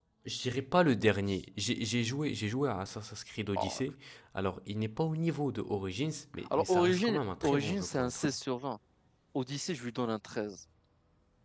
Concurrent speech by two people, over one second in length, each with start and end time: 6.5-8.4

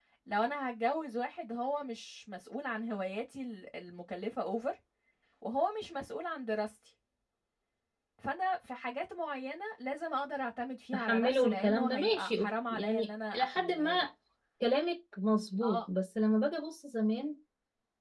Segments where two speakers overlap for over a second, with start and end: 10.9-14.1

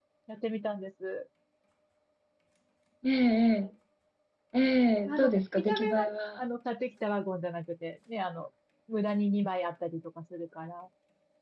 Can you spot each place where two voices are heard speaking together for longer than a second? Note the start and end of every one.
5.1-6.4

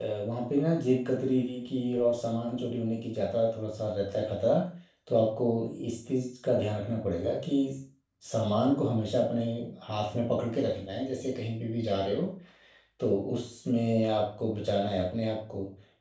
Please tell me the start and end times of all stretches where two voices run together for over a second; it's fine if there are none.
none

